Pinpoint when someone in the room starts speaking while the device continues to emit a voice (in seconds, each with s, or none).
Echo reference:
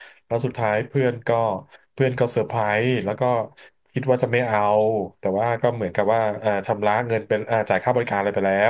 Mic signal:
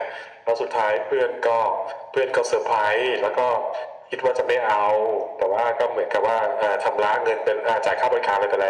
none